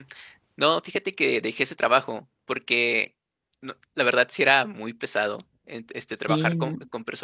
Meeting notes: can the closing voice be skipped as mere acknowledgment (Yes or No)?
Yes